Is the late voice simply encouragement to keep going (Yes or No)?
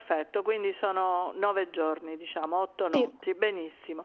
Yes